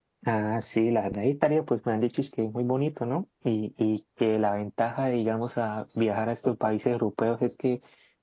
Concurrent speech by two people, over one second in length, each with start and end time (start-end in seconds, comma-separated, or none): none